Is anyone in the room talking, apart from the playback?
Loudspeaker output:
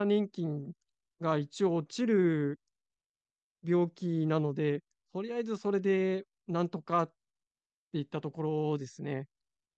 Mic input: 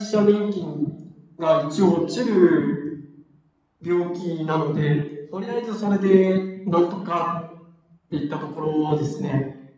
No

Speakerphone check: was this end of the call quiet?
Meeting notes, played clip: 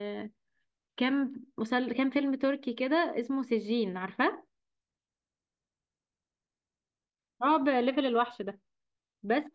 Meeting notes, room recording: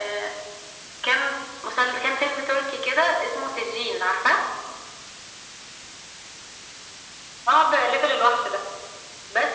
Yes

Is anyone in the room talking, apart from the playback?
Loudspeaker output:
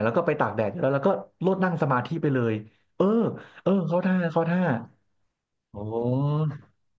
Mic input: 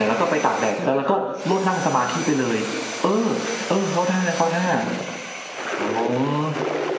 No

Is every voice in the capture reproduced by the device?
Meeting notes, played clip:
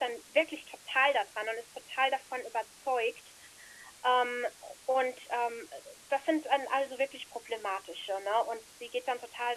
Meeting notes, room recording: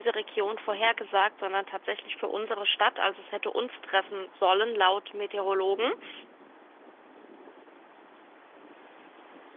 No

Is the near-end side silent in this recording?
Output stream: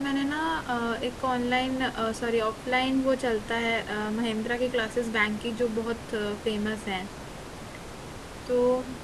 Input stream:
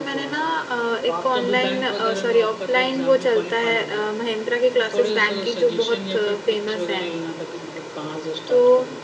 No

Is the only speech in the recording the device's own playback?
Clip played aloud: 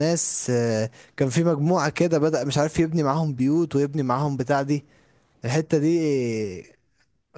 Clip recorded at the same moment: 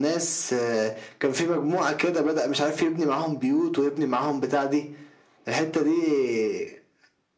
Yes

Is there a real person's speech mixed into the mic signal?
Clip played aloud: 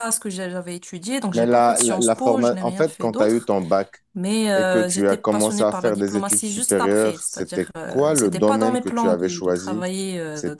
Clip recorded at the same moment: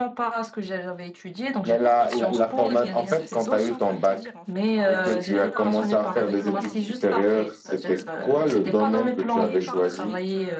Yes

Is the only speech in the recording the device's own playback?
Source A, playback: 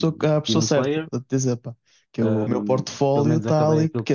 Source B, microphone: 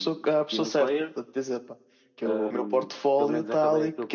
Yes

